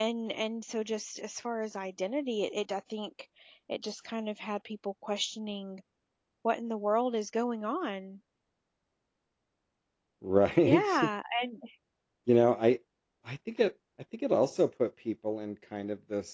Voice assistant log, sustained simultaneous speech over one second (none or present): none